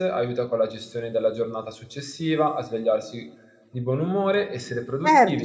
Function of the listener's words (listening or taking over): taking over